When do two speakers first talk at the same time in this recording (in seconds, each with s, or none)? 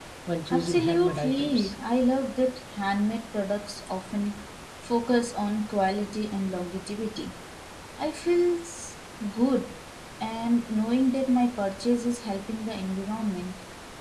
0.5 s